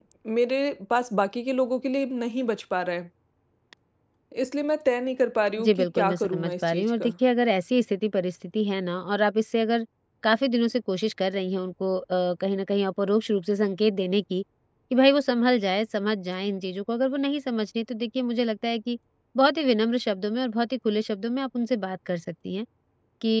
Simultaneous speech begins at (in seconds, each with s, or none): 5.6 s